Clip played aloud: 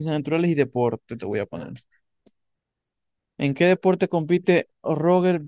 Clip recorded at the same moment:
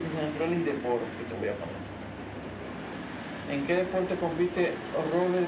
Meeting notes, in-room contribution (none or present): none